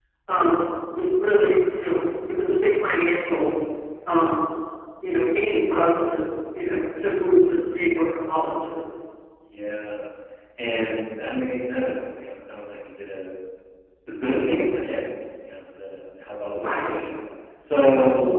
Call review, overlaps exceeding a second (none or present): none